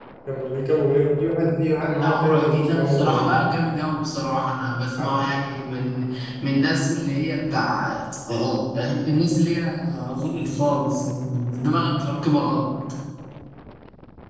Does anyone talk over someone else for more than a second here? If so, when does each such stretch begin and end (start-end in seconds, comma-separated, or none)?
2.0-3.3